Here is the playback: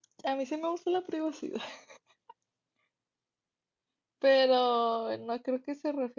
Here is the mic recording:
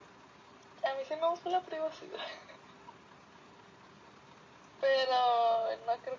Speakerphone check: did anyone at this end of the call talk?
No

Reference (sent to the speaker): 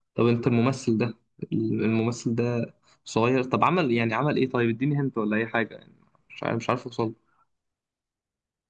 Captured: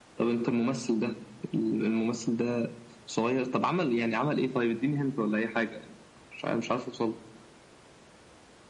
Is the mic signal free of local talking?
Yes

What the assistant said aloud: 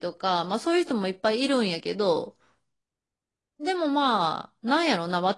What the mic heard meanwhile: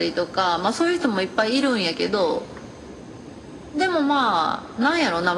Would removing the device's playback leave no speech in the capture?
Yes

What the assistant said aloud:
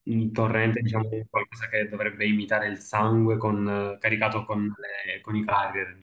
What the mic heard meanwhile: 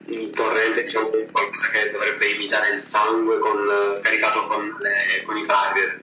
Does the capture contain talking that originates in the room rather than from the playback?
No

